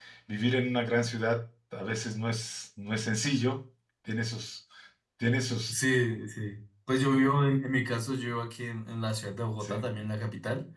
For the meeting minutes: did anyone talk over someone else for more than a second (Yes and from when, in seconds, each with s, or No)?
No